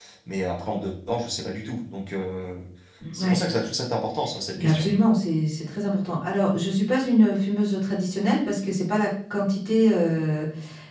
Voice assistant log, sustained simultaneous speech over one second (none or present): none